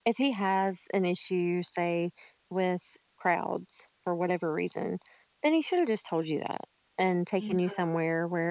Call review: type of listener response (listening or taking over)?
listening